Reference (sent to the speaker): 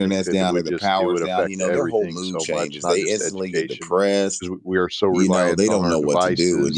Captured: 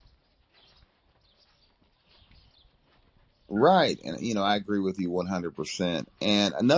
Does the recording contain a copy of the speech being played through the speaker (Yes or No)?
No